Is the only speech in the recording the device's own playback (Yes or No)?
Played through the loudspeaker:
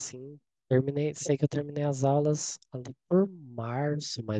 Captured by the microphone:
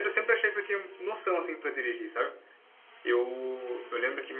No